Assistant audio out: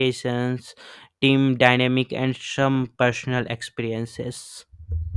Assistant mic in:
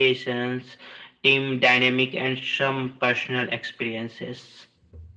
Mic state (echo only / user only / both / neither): echo only